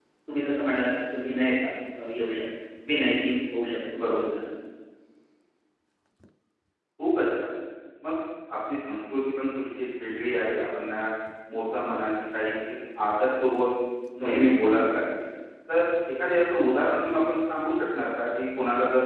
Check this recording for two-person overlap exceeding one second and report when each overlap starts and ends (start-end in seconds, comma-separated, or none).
none